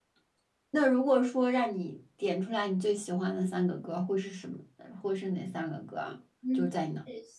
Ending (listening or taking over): taking over